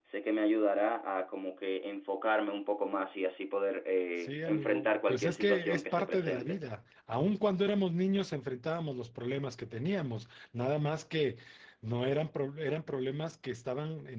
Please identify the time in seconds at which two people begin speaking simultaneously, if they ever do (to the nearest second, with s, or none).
4 s